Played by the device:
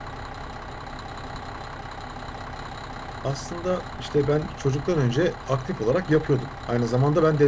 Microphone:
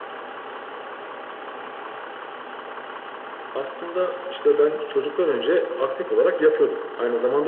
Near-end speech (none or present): none